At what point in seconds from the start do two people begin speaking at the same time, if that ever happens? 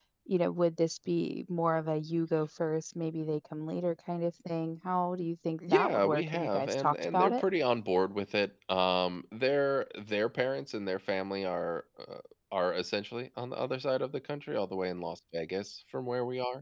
6 s

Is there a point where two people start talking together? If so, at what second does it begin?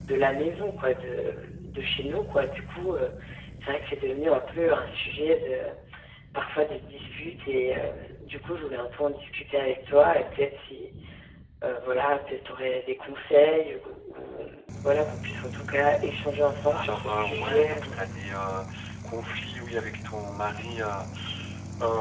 17 s

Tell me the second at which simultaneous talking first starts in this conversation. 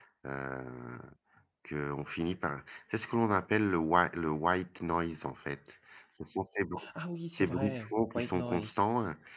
7 s

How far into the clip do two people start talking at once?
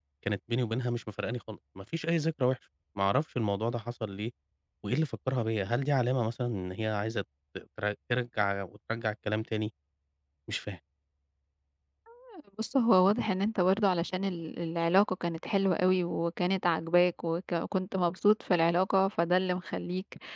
none

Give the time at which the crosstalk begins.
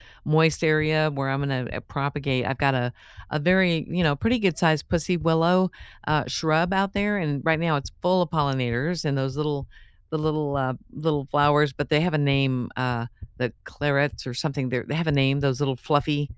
none

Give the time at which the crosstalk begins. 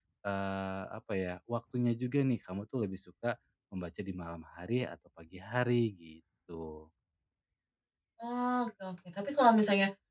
none

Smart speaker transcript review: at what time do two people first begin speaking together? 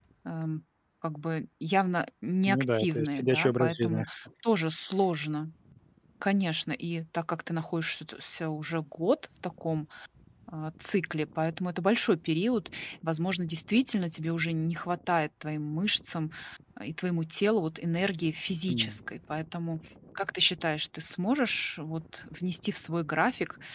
2 s

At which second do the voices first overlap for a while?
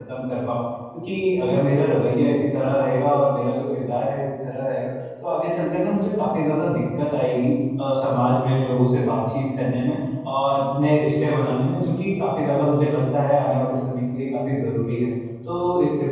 none

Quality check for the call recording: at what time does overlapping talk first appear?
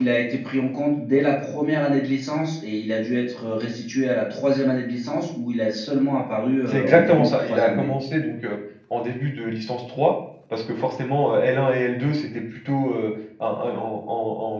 7 s

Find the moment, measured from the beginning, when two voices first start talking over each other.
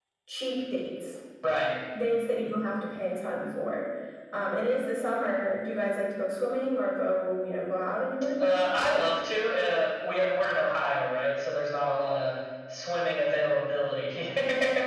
none

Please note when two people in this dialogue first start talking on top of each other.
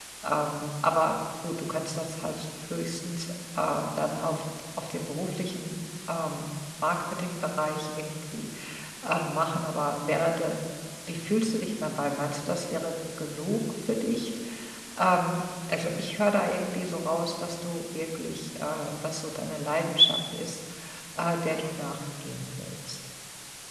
none

